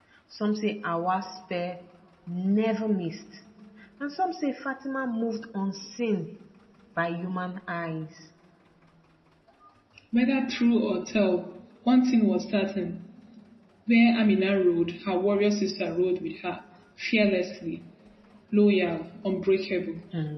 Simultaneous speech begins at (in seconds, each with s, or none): none